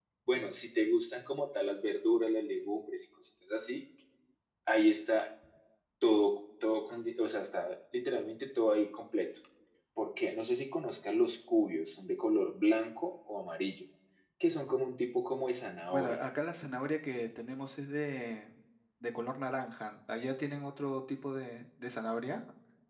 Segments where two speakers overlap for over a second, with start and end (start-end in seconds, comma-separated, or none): none